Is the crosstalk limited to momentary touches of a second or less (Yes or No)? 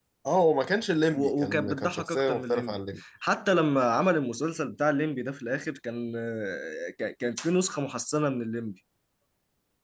No